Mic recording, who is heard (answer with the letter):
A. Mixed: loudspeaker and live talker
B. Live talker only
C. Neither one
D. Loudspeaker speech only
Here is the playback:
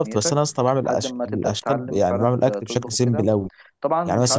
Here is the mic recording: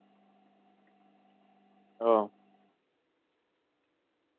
B